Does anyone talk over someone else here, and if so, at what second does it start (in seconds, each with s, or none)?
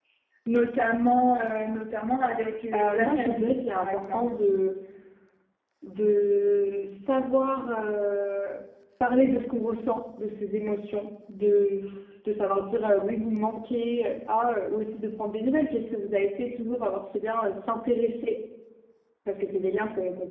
2.7 s